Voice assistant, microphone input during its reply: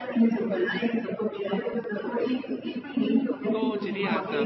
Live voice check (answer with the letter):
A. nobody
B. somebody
B